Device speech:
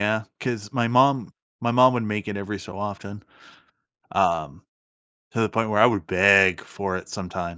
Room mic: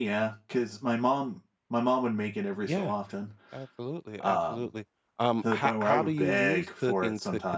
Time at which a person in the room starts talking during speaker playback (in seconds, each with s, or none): 2.6 s